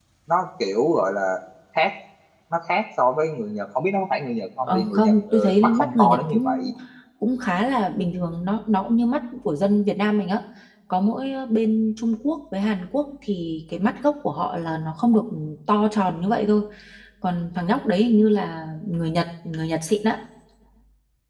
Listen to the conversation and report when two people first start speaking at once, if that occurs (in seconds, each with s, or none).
4.6 s